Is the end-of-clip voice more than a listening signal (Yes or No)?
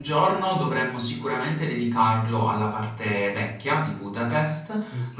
No